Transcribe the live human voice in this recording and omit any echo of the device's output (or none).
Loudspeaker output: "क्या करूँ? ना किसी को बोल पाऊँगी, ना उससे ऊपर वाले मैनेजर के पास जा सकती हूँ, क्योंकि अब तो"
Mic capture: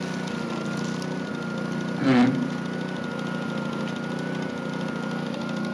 हुँ,